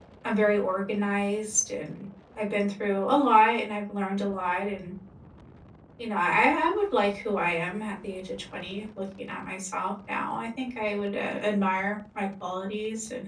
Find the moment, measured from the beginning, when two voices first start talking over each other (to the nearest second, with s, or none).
none